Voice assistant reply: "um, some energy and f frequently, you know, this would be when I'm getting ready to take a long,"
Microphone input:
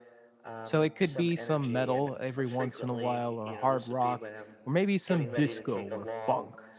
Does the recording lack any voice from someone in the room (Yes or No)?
No